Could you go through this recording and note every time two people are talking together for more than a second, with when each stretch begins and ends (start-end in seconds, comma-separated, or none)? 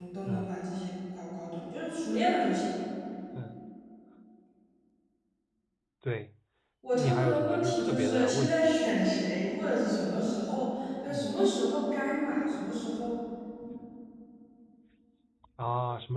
7.0-8.7